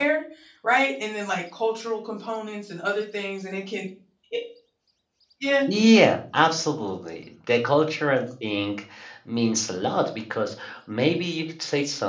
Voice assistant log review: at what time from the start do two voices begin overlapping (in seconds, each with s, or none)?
none